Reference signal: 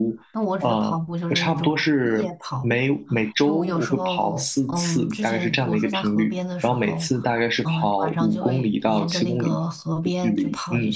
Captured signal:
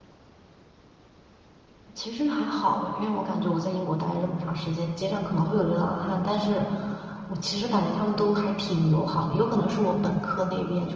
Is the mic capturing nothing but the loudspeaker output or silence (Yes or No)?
No